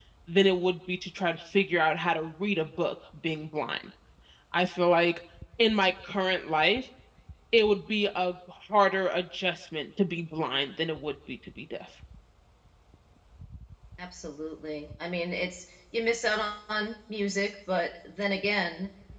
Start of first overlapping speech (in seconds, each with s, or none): none